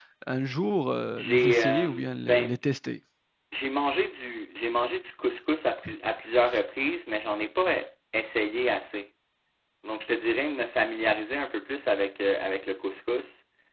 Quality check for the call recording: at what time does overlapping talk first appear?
1.2 s

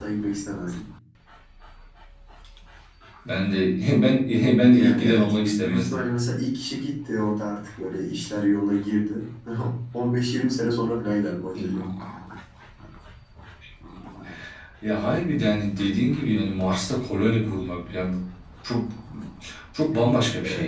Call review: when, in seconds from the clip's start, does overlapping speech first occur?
4.7 s

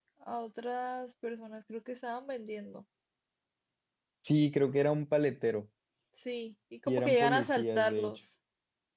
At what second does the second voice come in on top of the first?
6.9 s

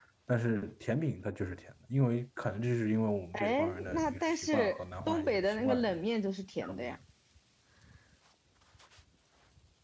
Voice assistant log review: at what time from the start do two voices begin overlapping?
3.3 s

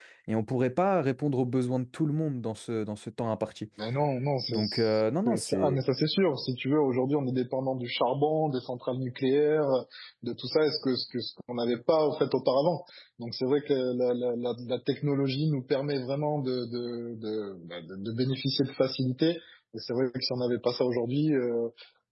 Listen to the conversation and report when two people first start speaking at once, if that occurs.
4.5 s

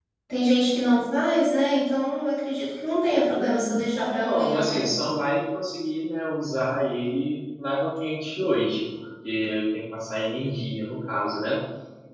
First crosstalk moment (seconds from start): 3.4 s

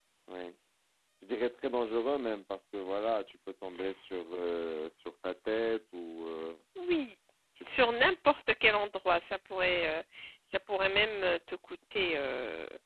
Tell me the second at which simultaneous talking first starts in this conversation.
none

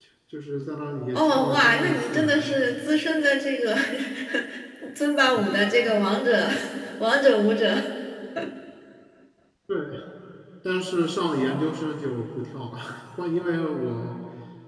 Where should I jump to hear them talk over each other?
1.1 s

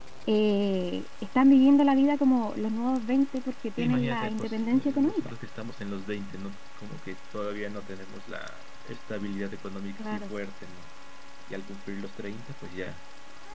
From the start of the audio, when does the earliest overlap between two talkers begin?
3.8 s

